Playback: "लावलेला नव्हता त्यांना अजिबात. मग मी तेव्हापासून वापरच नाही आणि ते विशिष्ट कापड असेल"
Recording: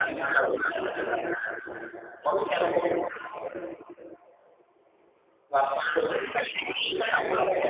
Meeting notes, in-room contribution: none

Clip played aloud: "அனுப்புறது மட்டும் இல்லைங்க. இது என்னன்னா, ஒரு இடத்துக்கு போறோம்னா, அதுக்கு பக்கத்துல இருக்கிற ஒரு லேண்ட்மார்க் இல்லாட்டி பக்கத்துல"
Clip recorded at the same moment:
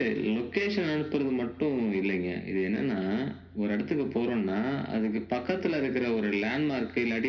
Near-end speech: none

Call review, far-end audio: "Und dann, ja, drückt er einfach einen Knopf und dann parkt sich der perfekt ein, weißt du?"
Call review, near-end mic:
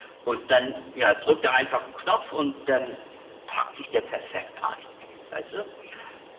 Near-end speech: none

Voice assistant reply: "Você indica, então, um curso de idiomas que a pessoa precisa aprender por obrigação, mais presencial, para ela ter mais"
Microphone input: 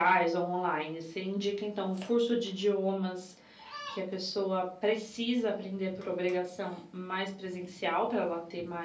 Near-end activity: none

